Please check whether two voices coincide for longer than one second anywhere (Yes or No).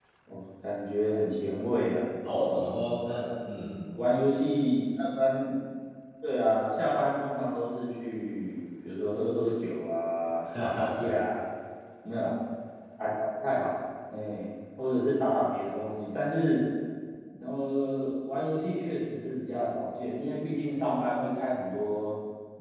No